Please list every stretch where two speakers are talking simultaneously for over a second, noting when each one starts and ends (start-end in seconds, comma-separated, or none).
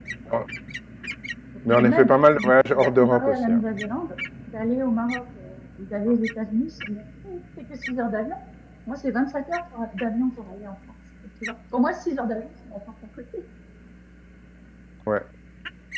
1.7-3.6